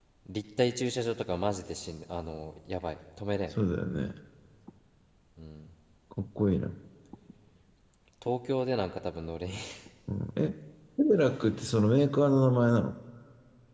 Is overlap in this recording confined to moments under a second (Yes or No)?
Yes